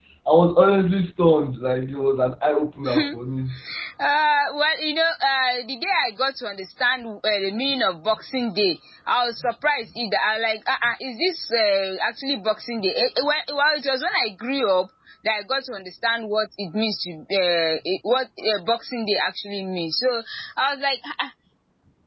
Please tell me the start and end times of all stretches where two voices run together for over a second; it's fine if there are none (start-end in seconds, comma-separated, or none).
none